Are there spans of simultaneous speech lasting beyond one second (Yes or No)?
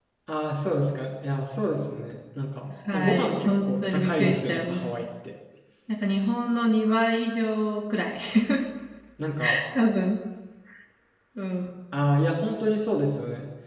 Yes